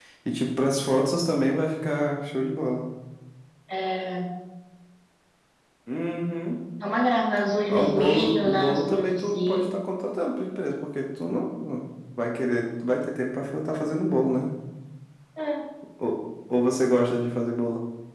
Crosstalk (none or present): present